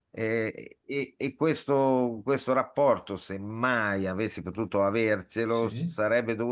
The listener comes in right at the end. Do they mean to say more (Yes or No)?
No